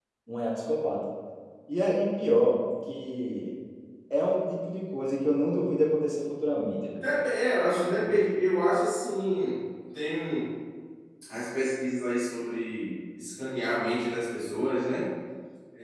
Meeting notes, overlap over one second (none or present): none